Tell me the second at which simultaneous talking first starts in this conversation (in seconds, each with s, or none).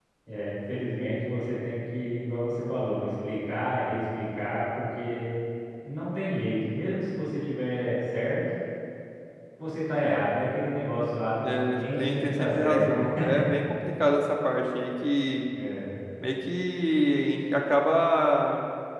11.4 s